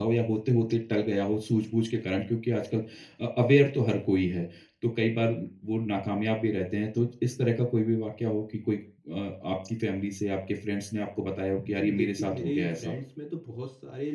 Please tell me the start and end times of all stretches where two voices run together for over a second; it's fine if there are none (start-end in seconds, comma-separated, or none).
11.7-12.9